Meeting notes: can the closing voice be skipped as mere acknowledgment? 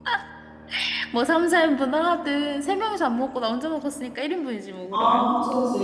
No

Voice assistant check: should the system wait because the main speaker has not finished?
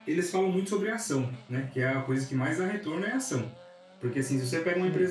Yes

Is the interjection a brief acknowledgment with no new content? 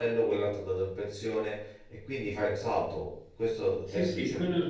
No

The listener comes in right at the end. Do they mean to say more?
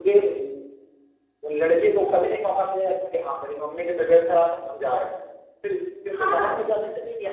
No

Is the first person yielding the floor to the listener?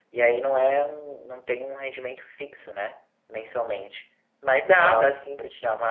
No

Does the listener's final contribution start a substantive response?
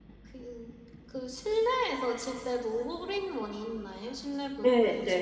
Yes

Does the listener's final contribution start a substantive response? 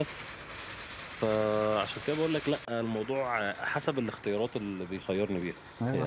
Yes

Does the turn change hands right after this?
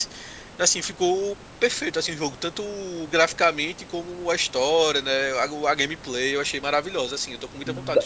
Yes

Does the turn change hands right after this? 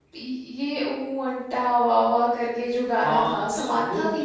Yes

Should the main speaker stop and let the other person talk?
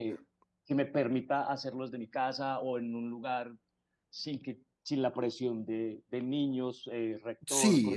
Yes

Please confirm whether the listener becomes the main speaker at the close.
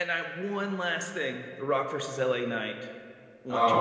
Yes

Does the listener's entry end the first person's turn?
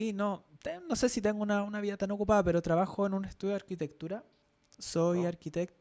No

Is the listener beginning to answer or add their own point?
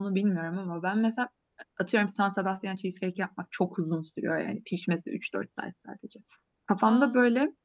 No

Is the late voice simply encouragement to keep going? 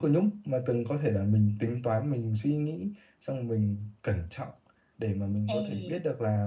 Yes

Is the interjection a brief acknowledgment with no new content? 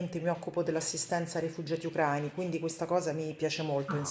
No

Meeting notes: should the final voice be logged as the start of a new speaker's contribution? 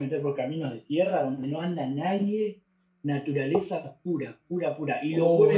Yes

